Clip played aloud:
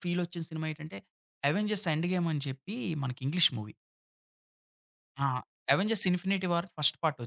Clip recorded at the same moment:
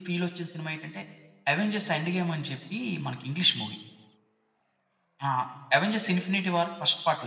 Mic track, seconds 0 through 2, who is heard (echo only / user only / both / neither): echo only